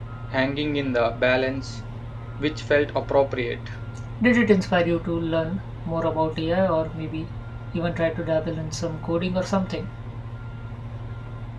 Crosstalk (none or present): none